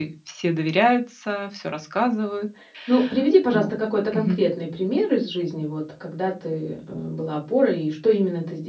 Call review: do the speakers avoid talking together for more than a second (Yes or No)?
Yes